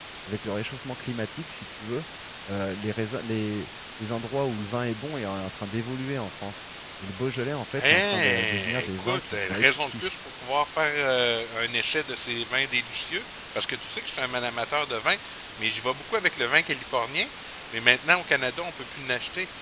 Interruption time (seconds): 7.7 s

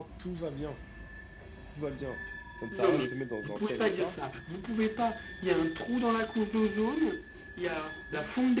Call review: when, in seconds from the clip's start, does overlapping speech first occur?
2.7 s

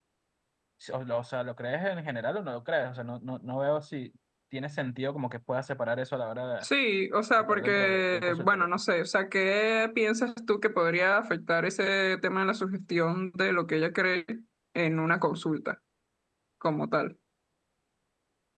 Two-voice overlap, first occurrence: 7.4 s

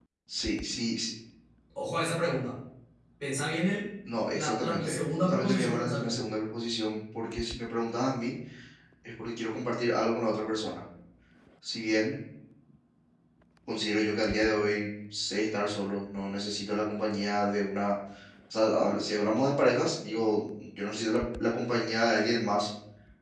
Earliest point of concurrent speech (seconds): 4.3 s

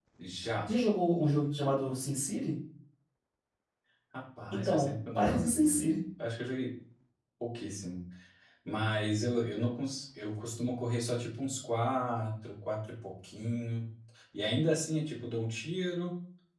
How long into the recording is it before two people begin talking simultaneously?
4.5 s

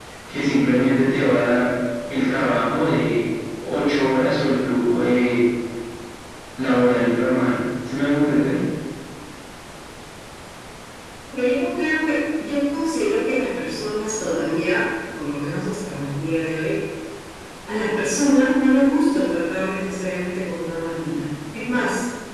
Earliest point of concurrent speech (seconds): none

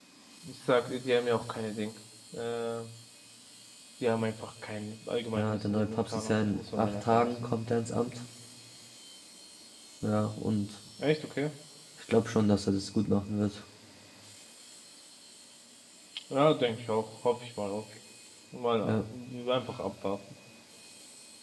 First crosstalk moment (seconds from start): 5.3 s

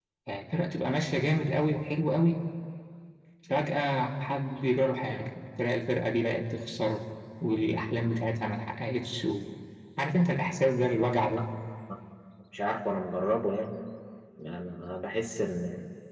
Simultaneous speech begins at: none

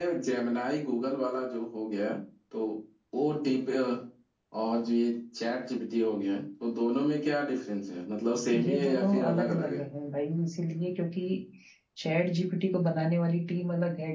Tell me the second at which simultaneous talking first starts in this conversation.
8.5 s

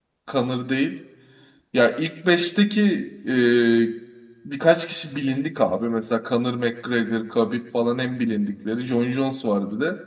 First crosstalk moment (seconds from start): none

